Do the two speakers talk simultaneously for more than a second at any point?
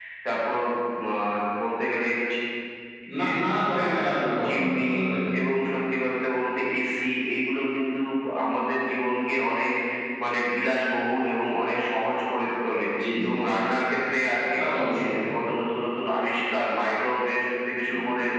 No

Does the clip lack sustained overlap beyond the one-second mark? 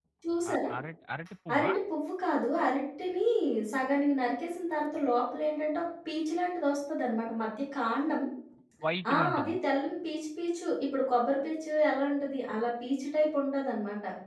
Yes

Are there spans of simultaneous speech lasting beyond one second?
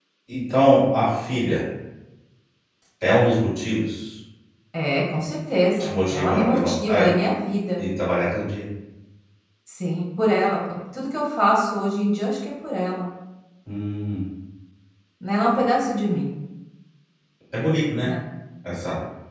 Yes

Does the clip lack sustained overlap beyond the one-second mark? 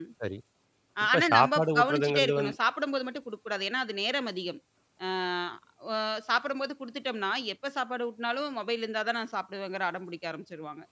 No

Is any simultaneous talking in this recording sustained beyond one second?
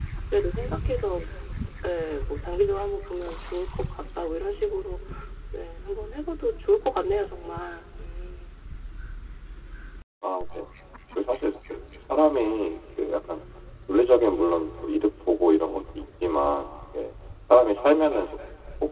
No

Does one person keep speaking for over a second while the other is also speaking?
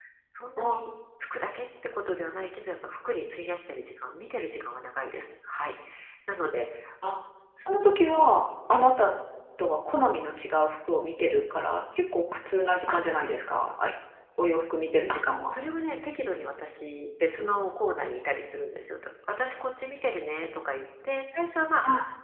No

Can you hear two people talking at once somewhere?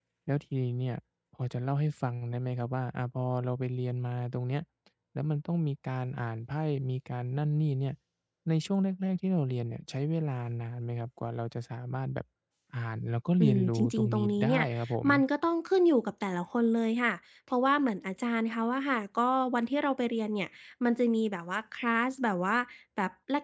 Yes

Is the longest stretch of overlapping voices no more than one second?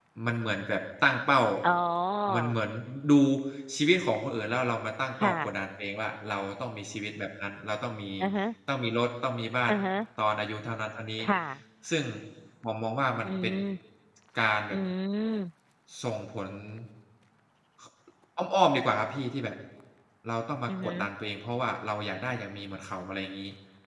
Yes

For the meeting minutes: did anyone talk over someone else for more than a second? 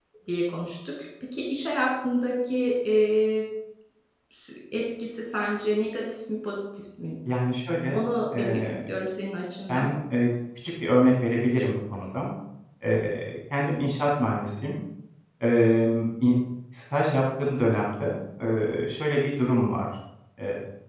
No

